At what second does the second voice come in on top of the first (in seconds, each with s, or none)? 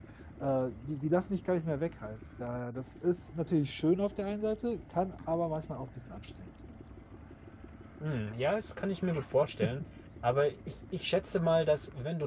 none